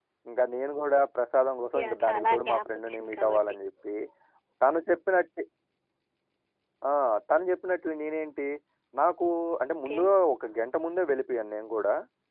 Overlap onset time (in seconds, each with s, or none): 1.7 s